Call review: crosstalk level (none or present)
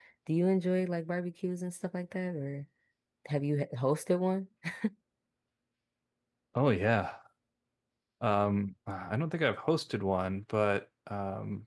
none